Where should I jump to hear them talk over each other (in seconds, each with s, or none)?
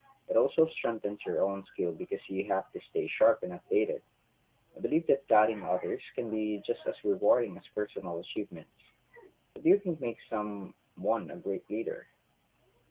none